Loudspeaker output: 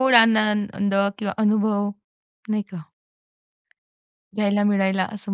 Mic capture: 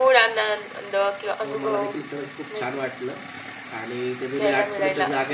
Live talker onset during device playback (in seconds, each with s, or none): 1.4 s